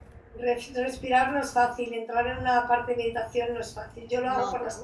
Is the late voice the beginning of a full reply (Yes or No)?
No